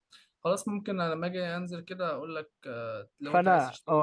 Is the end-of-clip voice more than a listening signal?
Yes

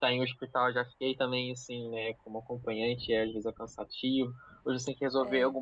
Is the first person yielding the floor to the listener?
No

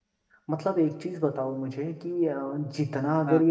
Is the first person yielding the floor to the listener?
No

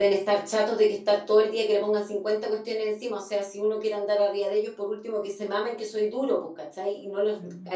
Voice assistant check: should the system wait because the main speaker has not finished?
Yes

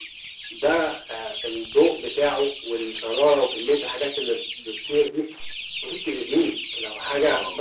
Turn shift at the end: No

